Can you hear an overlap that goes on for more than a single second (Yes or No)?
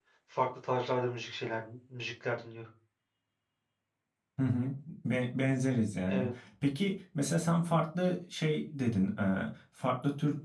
No